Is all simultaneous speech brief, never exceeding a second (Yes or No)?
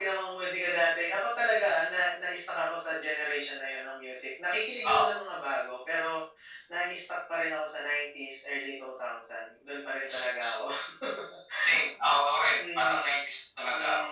Yes